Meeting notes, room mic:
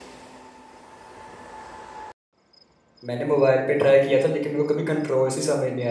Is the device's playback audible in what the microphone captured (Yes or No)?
No